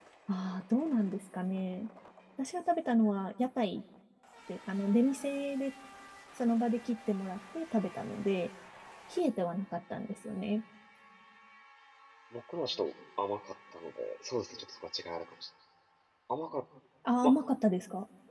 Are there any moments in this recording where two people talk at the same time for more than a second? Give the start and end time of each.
none

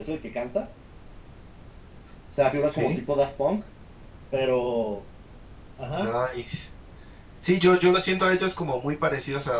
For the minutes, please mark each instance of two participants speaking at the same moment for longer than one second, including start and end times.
none

